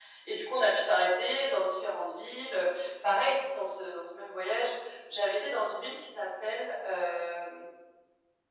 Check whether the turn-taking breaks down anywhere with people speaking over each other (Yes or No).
No